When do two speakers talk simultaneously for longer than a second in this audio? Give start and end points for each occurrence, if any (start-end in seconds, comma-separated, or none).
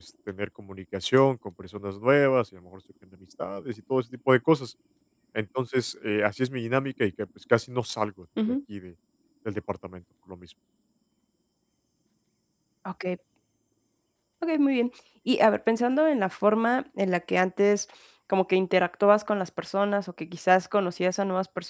none